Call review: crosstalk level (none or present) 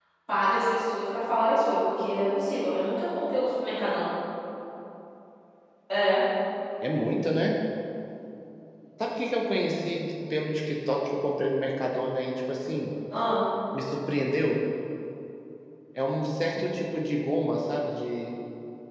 none